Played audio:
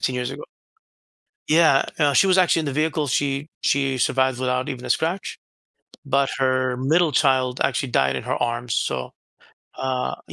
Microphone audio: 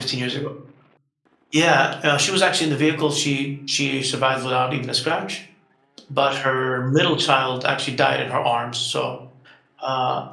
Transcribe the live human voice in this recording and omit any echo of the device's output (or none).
none